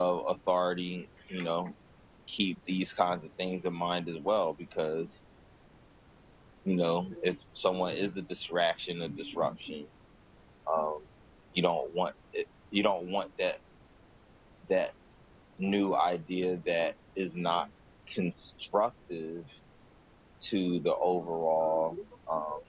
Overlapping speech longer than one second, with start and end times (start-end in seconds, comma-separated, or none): none